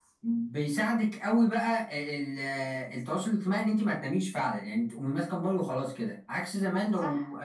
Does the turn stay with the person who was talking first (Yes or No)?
Yes